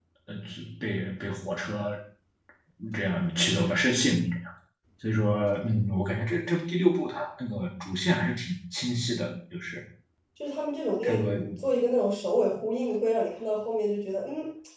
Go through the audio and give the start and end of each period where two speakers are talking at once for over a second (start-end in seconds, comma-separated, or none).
none